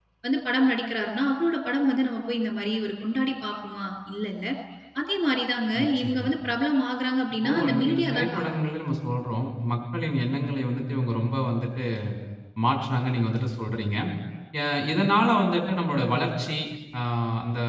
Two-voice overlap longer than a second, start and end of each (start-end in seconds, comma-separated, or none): 7.4-8.6